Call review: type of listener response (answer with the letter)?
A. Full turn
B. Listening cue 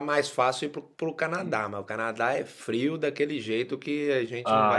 A